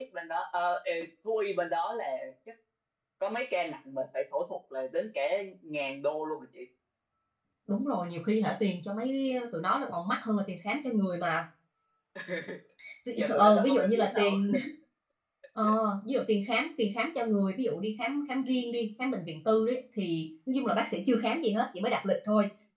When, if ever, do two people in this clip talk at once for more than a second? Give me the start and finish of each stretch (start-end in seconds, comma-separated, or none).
13.2-14.4